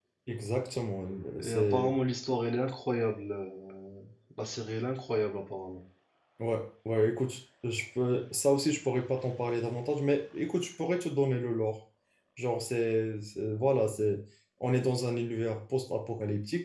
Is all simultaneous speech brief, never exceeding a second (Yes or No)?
Yes